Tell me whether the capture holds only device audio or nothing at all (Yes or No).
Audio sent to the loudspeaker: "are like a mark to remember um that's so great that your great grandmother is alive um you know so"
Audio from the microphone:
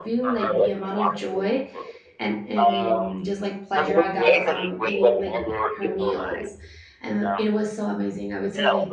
No